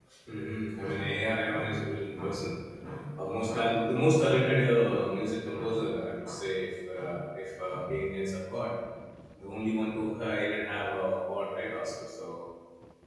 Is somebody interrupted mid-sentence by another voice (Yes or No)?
No